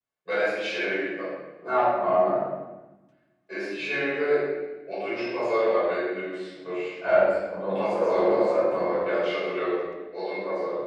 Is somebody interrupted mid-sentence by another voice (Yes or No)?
Yes